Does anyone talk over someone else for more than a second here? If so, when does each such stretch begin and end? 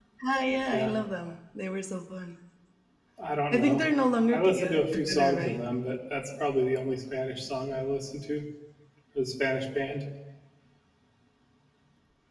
4.3-5.7

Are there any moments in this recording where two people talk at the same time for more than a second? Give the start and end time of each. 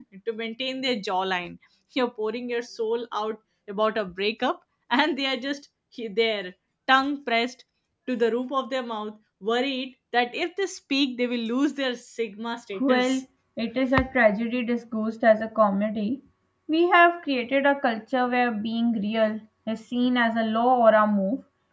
none

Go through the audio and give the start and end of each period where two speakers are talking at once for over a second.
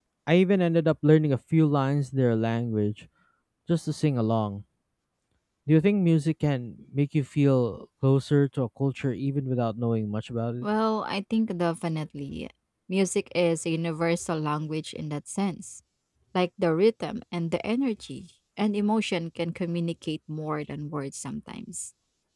none

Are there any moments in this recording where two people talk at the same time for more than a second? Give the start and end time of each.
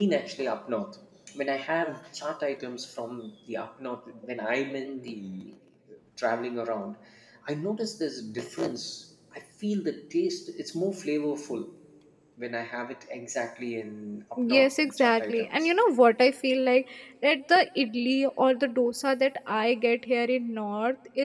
14.4-15.7

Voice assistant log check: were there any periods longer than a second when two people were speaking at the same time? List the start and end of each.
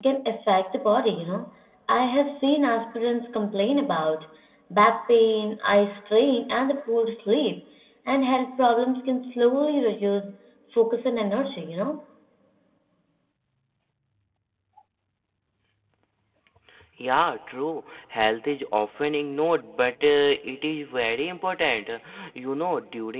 none

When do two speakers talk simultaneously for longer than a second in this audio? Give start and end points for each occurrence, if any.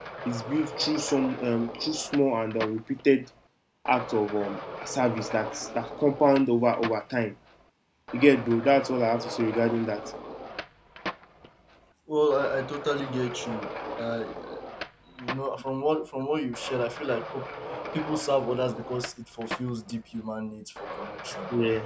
none

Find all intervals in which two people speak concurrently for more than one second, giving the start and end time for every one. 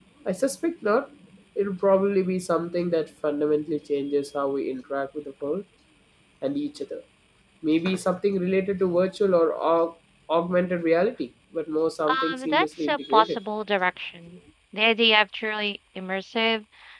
12.1-13.4

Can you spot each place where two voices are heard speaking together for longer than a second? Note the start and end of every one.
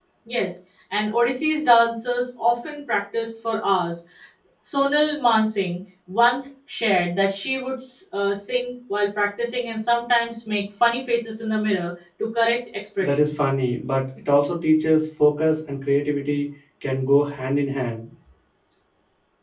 none

